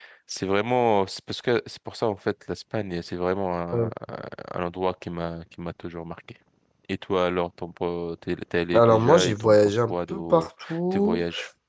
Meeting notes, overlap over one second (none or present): present